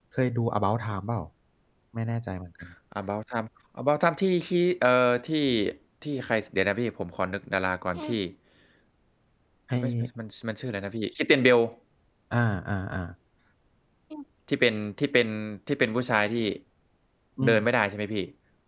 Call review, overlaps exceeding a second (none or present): none